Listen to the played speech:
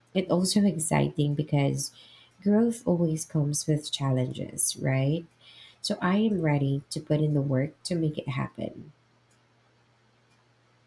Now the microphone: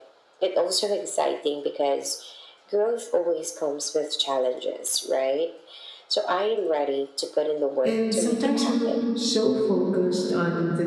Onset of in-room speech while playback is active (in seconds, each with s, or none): 7.8 s